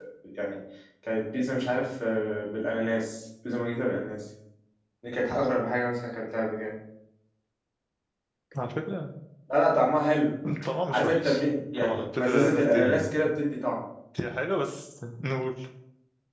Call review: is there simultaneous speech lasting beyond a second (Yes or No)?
Yes